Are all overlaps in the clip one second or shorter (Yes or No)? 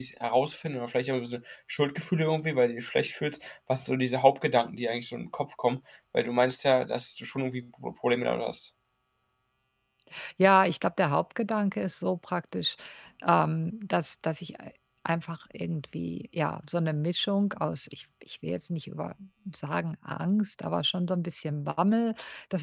Yes